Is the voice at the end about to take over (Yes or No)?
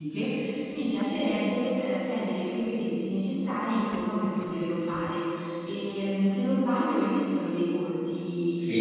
Yes